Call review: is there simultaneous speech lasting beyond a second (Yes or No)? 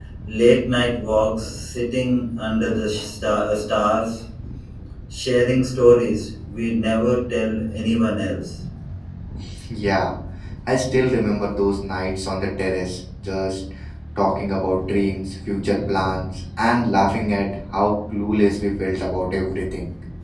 No